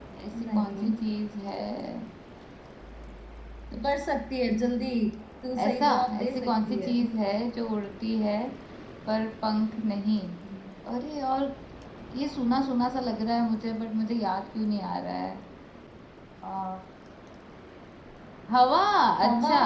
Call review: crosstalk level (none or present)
present